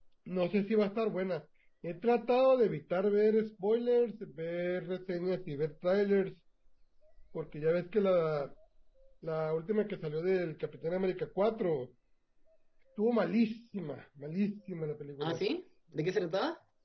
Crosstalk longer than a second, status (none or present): none